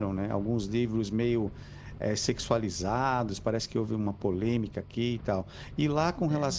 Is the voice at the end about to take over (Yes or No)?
No